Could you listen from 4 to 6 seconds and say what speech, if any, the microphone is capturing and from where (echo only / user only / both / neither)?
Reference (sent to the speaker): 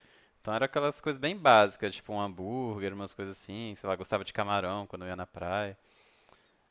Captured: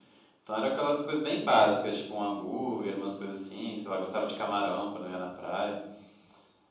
echo only